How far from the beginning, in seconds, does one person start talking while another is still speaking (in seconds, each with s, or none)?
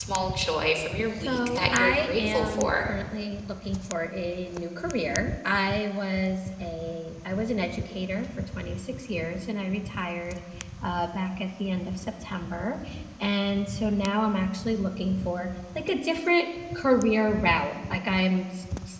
1.2 s